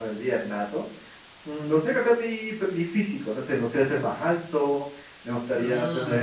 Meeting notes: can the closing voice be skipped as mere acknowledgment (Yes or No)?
Yes